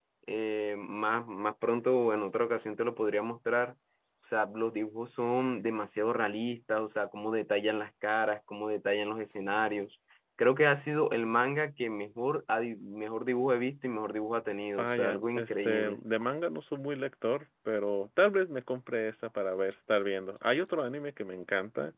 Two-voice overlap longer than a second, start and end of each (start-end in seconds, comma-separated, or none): 14.8-16.0